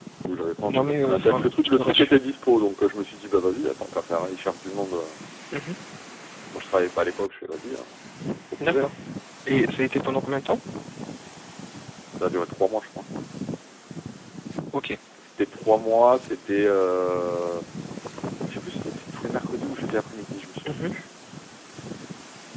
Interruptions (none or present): present